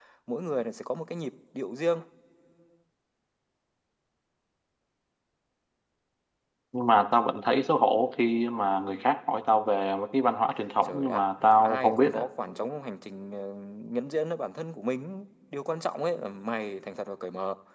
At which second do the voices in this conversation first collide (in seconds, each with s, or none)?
10.8 s